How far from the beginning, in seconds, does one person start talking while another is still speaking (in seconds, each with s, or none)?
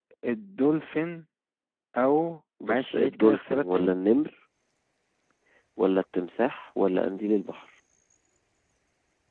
2.6 s